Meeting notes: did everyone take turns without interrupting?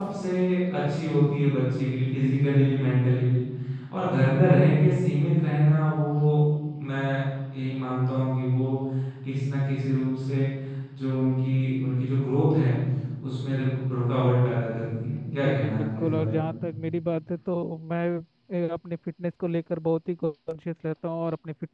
No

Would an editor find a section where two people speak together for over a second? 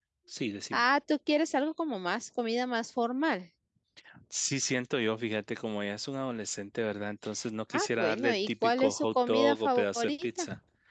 Yes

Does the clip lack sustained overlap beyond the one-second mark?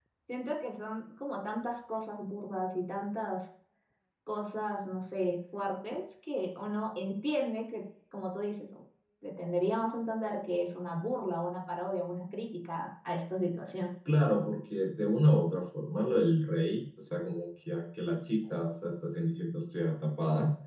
Yes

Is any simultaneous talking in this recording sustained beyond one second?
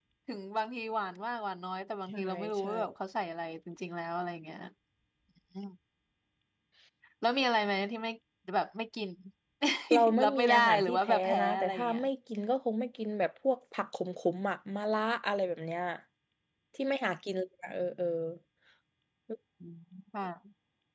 Yes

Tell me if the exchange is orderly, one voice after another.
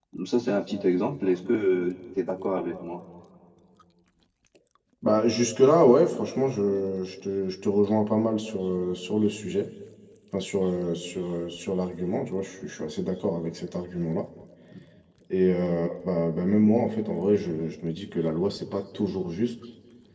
Yes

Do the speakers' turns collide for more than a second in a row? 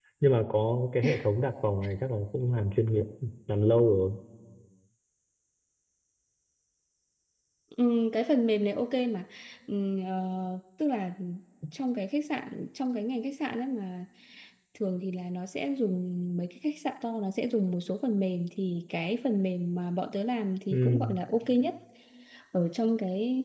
No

